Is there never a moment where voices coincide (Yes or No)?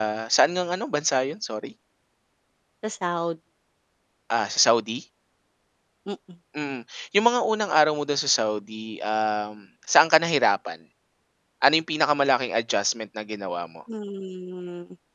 Yes